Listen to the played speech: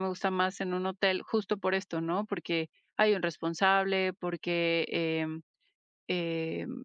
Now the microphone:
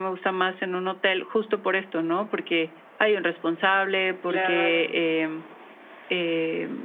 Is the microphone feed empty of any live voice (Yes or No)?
No